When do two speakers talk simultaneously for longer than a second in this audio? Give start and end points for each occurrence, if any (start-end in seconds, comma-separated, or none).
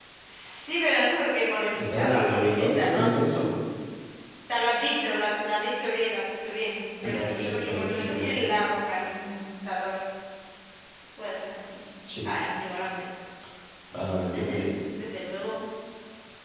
1.7-3.0, 7.1-8.5